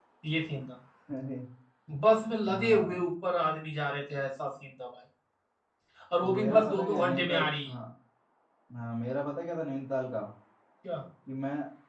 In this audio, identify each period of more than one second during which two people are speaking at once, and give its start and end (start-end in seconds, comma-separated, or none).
6.4-7.7